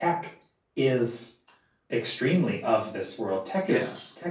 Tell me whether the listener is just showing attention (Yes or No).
Yes